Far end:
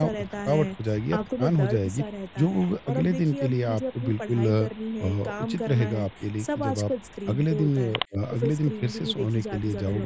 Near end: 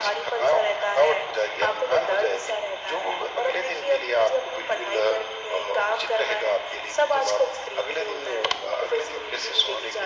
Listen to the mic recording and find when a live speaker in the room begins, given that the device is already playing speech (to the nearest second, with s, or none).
none